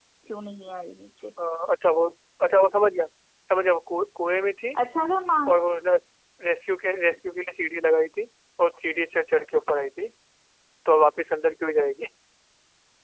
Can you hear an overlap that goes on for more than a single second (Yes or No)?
No